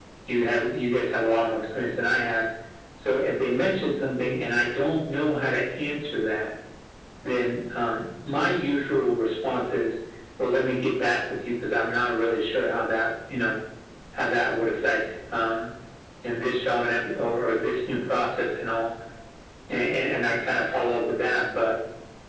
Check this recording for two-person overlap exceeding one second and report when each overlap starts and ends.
none

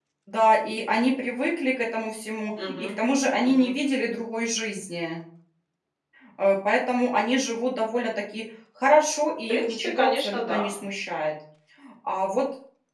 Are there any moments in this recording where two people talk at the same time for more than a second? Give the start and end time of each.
9.5-10.7

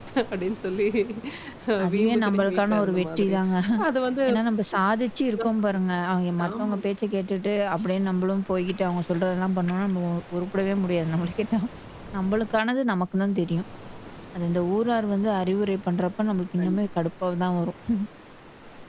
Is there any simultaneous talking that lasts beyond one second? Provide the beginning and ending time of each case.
1.9-3.4

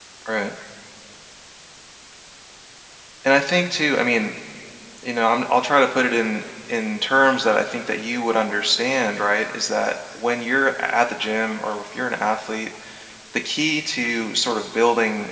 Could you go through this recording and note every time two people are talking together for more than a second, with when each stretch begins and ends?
none

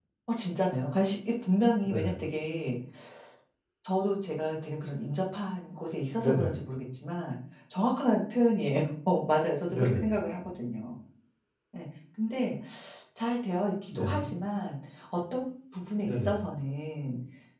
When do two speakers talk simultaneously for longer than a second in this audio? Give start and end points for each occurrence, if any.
none

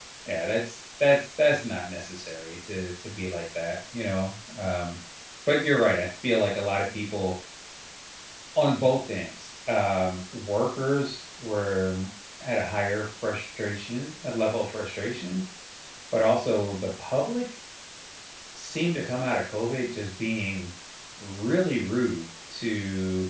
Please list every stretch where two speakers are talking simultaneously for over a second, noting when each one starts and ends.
none

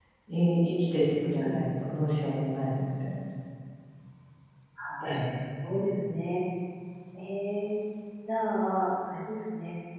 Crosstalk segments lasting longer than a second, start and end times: none

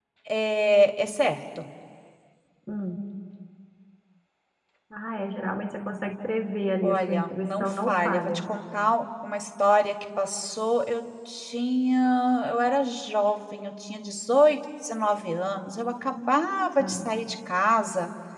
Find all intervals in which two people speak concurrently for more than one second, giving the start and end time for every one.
6.8-8.4

